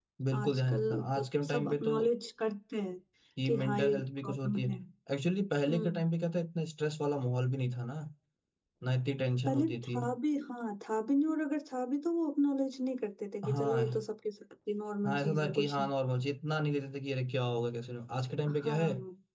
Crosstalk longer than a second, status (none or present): present